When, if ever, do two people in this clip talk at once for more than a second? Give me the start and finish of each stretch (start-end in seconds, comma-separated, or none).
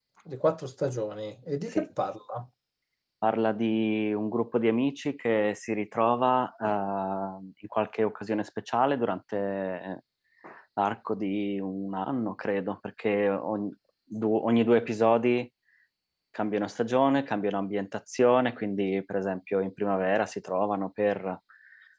none